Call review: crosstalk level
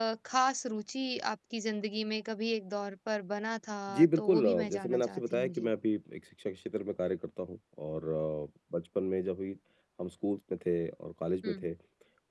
present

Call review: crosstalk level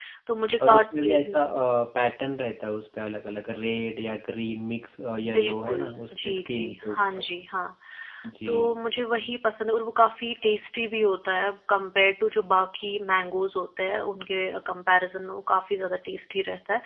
present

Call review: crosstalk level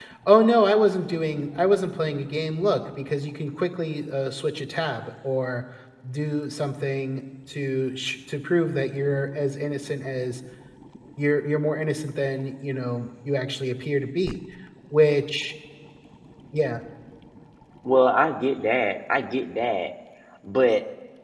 none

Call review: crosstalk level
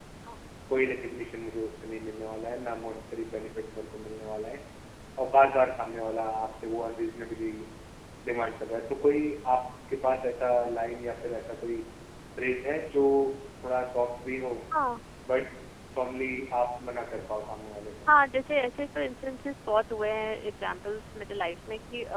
none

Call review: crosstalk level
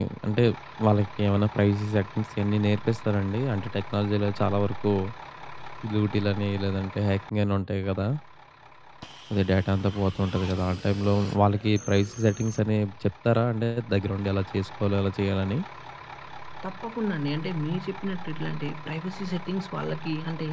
none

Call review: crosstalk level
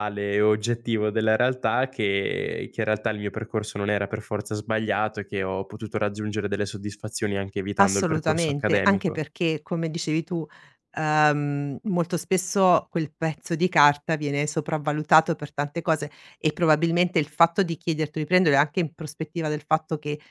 present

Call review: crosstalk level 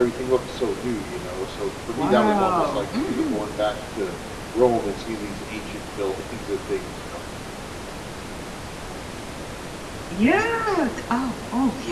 present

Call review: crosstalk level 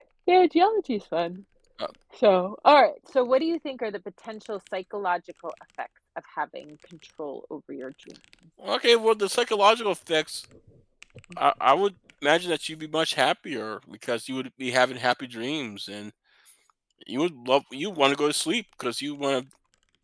none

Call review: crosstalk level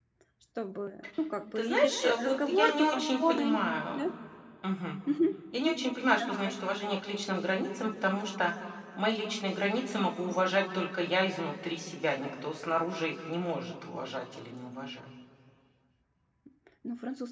present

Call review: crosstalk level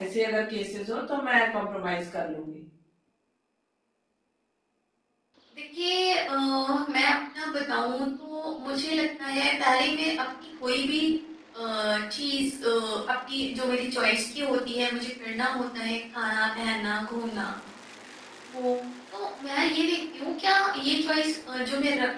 none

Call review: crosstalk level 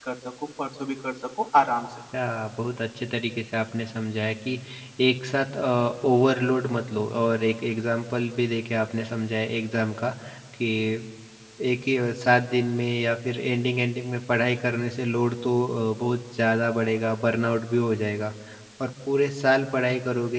none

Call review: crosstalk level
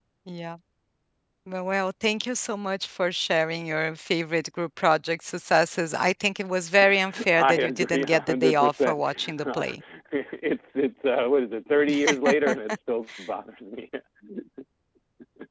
present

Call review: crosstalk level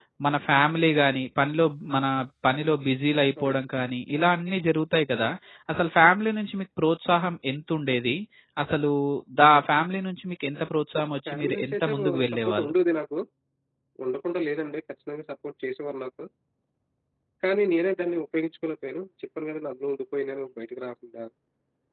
present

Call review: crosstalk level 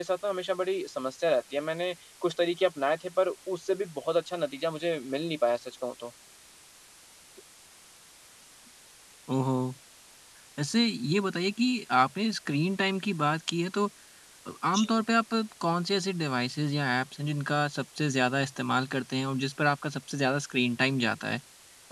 none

